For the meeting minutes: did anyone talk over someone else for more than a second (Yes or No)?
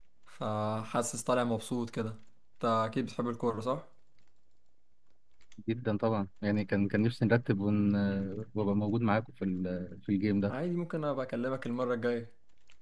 No